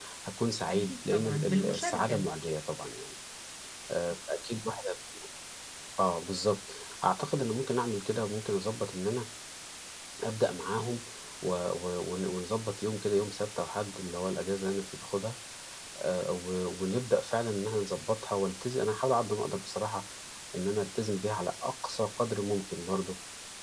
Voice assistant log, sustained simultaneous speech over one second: present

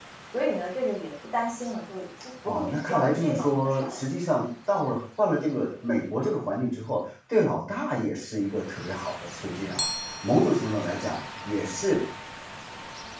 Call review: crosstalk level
present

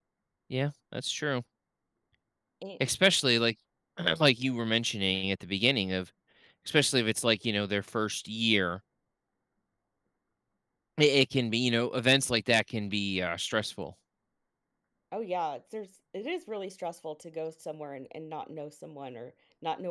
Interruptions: none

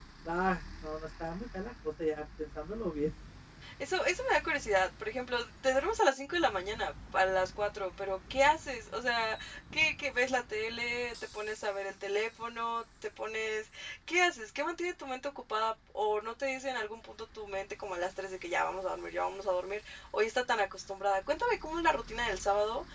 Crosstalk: none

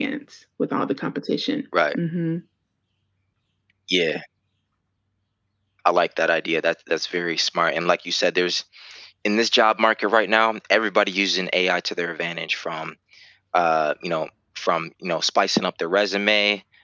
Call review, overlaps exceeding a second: none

